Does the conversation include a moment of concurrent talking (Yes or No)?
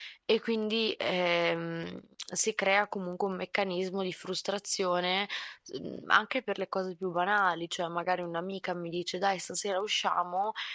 No